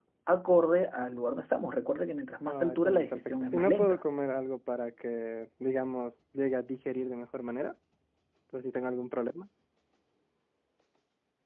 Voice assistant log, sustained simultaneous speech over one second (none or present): present